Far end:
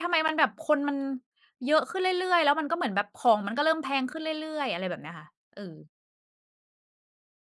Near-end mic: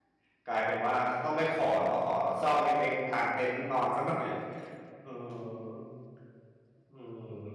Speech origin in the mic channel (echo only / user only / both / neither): user only